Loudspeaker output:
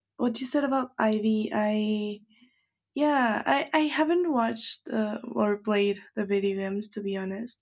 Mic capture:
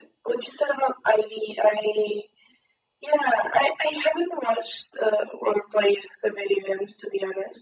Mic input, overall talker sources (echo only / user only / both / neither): echo only